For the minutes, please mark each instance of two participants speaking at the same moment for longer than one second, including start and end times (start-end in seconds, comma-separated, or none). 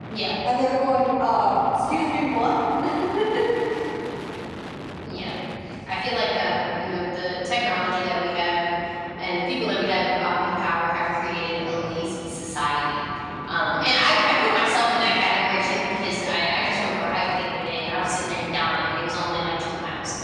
none